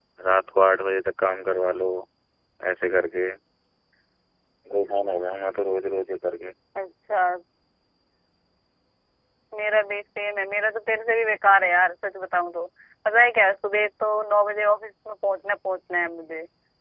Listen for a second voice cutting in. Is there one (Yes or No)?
No